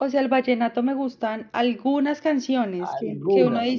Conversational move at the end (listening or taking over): listening